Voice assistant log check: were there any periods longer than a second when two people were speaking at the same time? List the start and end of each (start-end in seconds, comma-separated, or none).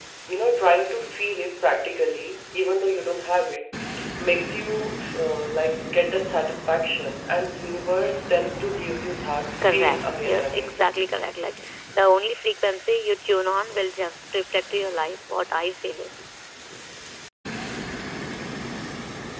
9.6-10.8